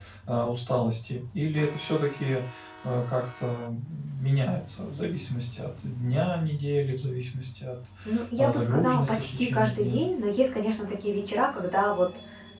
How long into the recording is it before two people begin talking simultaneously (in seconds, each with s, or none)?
8.4 s